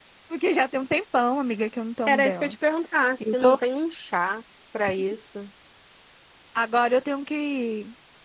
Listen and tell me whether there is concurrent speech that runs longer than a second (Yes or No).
No